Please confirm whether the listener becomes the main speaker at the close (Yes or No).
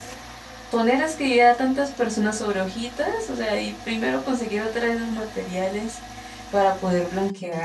Yes